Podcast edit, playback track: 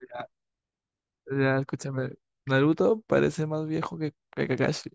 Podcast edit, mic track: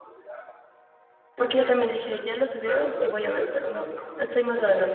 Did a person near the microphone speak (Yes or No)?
Yes